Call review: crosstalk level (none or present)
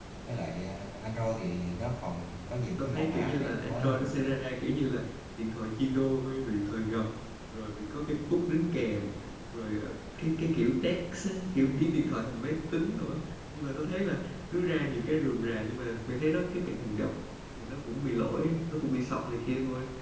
present